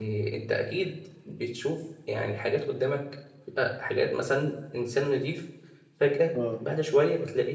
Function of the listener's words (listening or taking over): listening